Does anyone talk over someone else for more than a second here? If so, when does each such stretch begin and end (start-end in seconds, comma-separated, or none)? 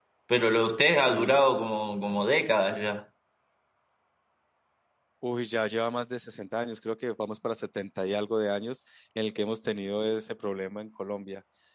none